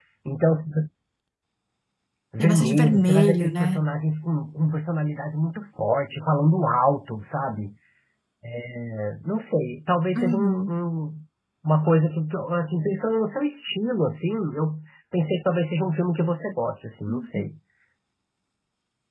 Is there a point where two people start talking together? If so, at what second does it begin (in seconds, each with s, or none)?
2.4 s